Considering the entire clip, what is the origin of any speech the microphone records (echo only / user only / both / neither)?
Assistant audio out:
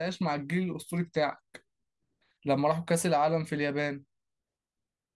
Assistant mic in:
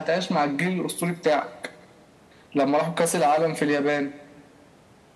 echo only